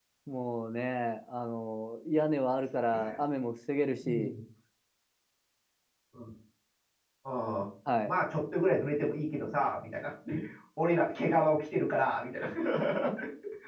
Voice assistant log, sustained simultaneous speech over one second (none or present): none